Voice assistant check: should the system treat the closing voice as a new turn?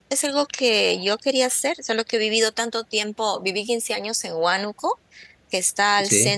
No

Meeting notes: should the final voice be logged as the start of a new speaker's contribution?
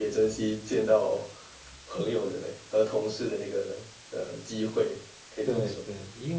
Yes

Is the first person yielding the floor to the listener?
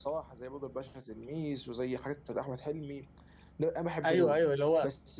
Yes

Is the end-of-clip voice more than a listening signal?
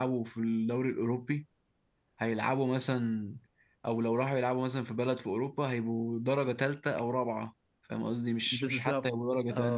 Yes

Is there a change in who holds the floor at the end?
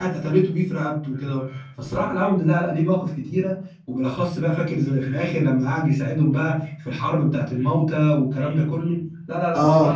Yes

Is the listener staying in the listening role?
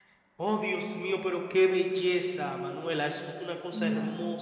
Yes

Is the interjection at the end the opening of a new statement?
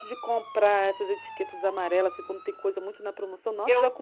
No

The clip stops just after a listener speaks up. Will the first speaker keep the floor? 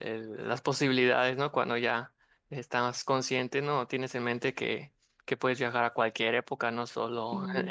Yes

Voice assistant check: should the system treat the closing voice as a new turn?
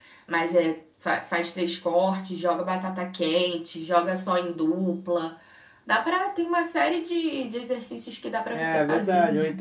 Yes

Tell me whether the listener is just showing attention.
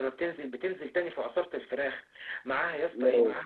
Yes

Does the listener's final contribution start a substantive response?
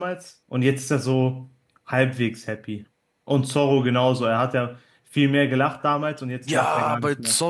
Yes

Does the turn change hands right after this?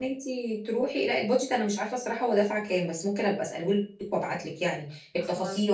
No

